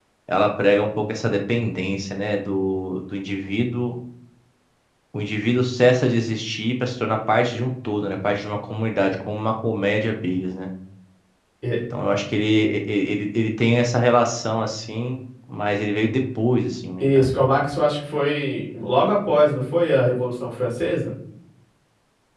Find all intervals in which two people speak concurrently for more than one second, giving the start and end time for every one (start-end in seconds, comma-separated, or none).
none